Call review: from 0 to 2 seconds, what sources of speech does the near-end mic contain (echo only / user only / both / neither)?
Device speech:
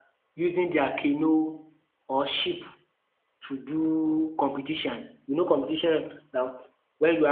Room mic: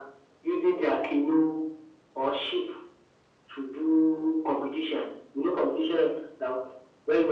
echo only